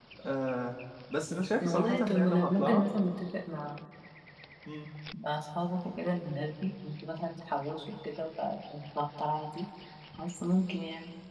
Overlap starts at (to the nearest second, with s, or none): 2 s